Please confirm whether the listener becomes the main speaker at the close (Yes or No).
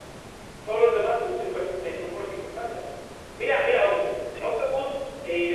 No